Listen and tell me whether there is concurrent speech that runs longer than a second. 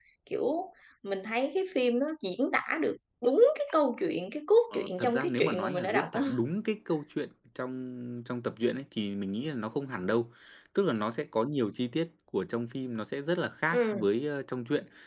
Yes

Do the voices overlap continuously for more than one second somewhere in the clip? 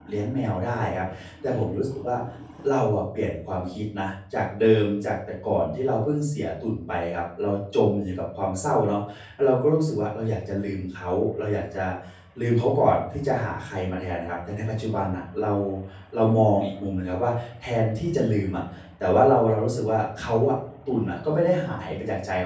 No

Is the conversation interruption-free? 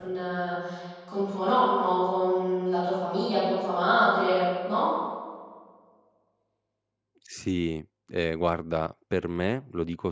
Yes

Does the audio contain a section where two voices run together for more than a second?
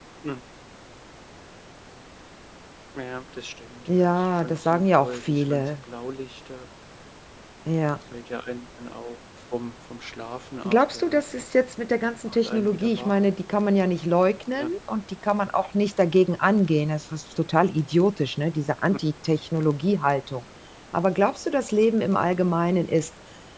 Yes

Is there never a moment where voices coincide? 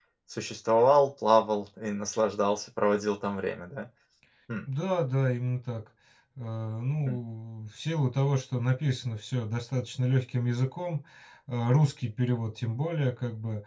Yes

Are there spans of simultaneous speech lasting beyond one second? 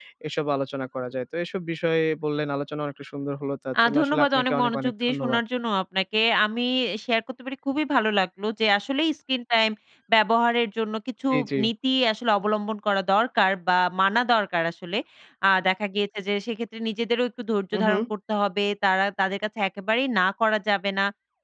Yes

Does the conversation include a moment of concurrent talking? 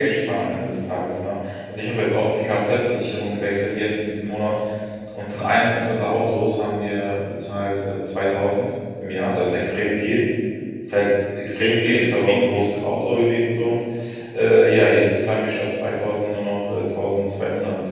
Yes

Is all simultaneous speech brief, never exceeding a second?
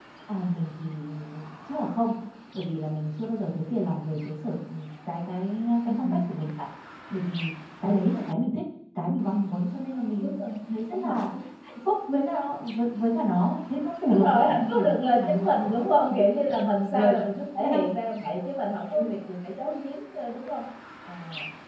No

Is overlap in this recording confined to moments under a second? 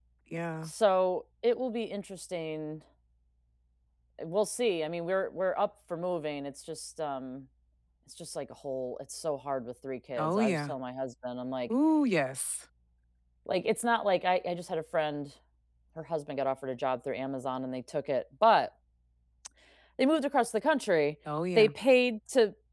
Yes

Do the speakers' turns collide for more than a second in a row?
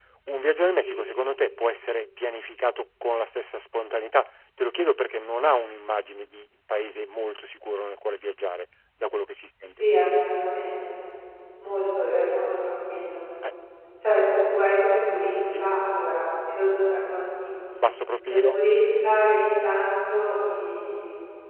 No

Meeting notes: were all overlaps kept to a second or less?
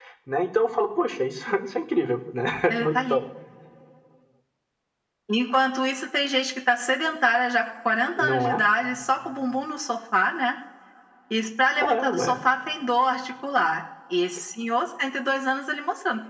Yes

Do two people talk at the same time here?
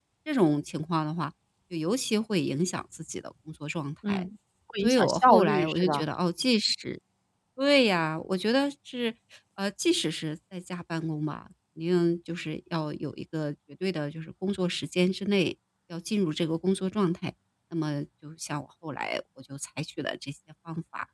Yes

